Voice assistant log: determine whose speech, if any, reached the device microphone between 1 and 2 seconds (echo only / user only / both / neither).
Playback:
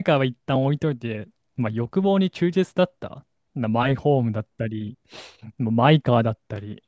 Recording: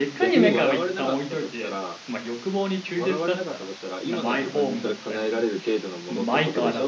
both